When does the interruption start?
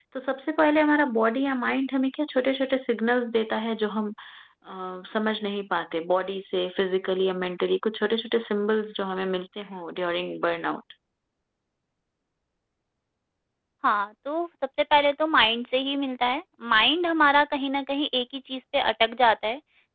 none

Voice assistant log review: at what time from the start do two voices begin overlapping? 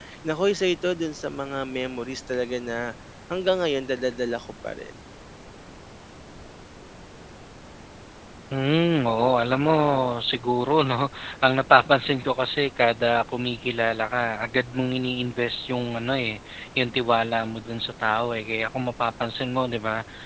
none

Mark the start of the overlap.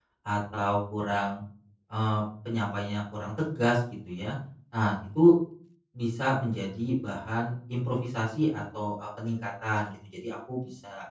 none

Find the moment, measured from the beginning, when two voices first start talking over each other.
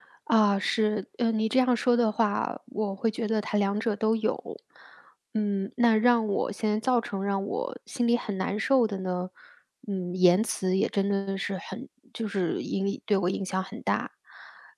none

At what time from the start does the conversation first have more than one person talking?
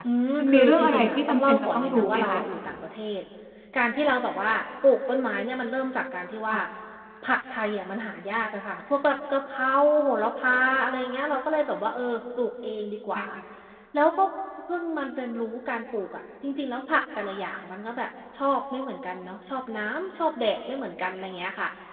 0.5 s

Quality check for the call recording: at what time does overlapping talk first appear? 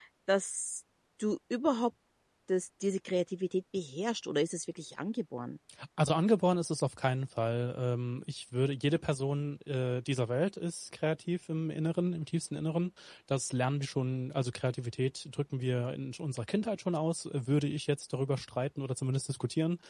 none

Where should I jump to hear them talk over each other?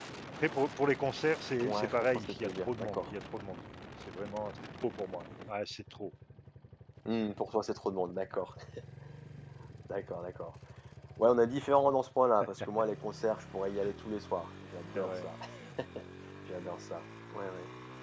1.6 s

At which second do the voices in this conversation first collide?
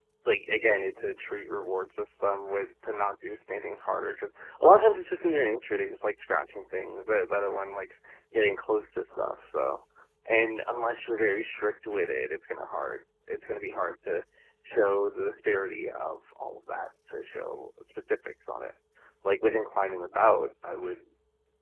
none

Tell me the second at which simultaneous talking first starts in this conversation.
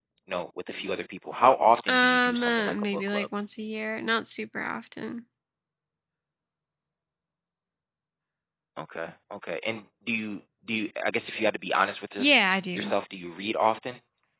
1.9 s

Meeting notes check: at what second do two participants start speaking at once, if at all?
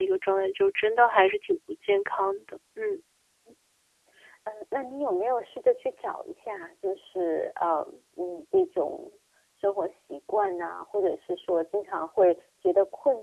none

